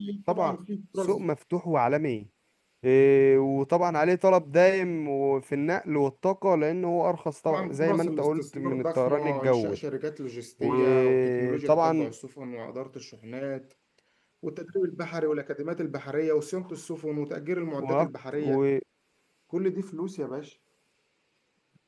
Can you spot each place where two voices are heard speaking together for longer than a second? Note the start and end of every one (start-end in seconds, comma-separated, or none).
7.5-9.8, 10.6-12.1